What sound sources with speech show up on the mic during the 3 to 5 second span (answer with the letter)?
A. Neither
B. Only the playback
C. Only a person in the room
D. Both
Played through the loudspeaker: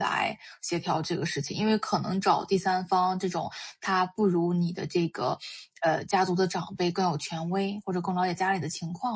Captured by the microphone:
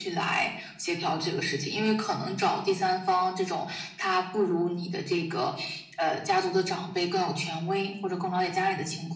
B